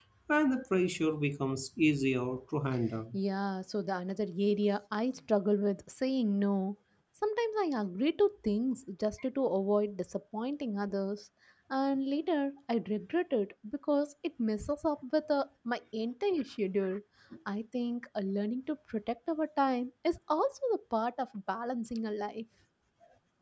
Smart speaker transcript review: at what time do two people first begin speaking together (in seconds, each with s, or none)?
none